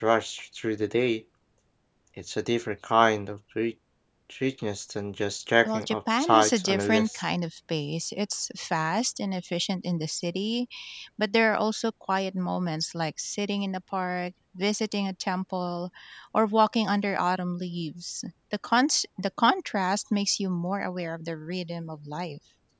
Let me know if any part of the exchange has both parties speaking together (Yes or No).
Yes